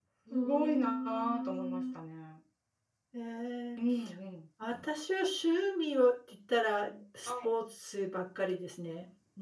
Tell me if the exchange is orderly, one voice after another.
No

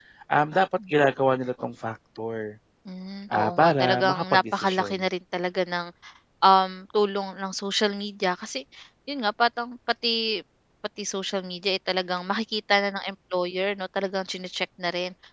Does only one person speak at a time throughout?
No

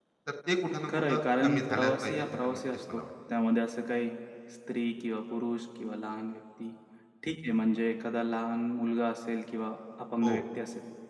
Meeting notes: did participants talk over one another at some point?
Yes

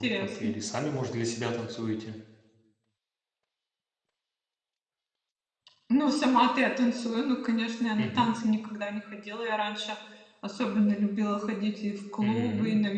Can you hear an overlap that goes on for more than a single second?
No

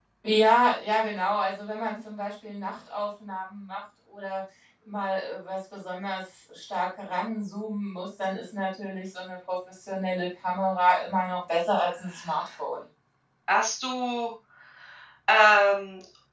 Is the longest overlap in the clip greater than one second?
No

